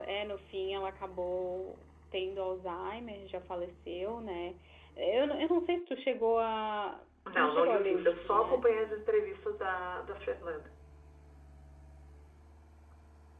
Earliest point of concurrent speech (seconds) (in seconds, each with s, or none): 7.3 s